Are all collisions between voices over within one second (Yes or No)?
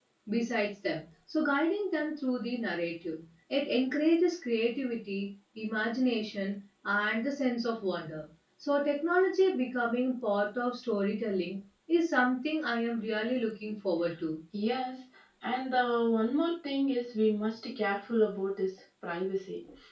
Yes